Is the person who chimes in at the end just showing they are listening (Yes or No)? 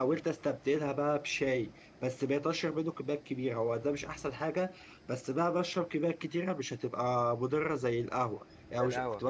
Yes